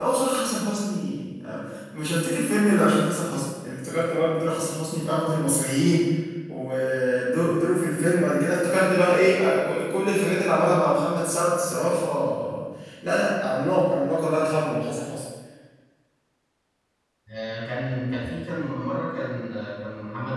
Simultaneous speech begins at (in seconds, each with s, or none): none